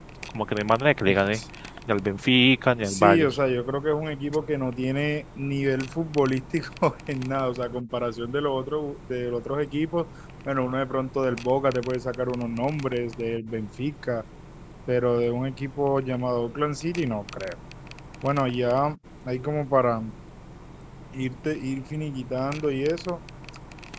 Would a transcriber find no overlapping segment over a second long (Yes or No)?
Yes